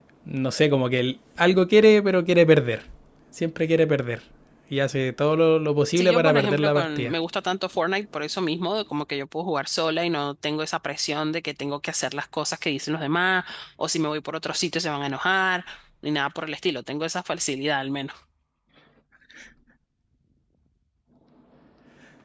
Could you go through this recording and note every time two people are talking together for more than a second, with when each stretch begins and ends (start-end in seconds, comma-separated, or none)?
6.0-7.2